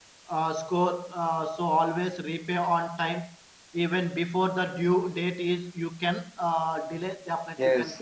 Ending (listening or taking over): taking over